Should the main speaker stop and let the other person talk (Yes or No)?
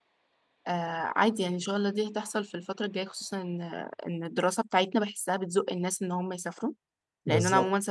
No